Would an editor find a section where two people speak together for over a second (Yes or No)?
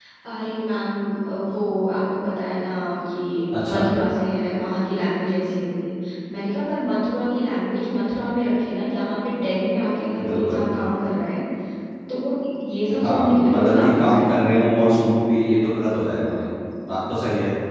Yes